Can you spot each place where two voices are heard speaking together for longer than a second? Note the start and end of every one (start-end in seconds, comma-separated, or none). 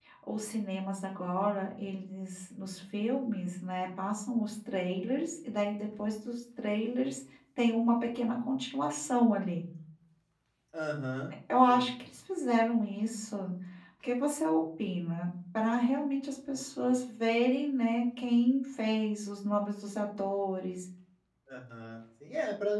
none